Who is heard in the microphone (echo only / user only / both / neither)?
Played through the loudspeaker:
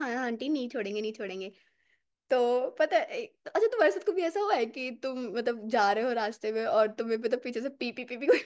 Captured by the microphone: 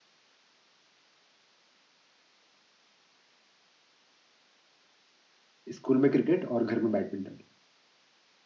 user only